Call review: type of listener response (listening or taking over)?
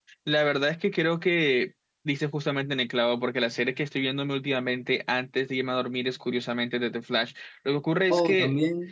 listening